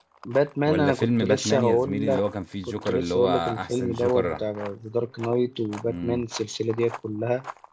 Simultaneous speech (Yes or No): Yes